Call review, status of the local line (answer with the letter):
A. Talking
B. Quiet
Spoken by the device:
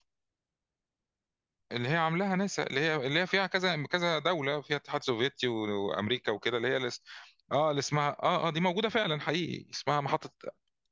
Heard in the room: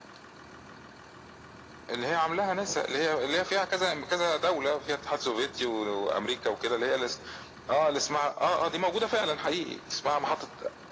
B